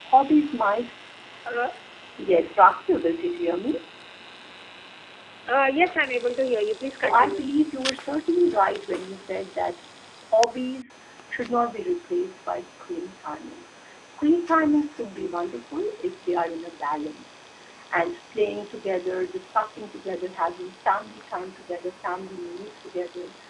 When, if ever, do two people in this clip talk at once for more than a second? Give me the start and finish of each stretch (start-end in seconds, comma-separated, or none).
none